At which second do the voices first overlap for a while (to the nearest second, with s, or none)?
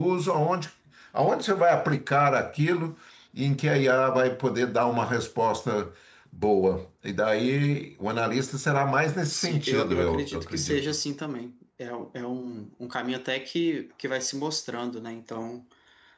9 s